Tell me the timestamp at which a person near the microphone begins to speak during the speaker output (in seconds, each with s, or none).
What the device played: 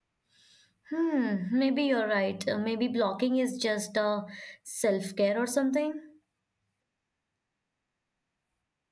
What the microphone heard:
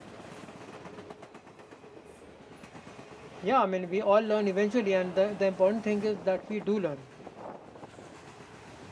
3.5 s